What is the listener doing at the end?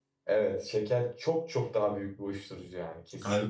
taking over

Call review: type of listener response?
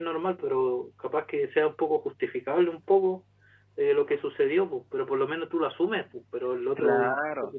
taking over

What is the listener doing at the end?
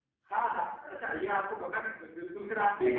listening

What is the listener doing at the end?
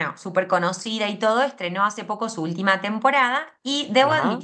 listening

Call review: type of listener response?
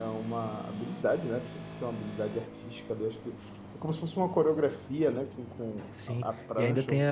taking over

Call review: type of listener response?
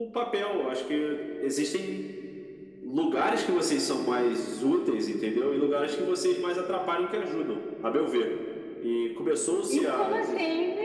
taking over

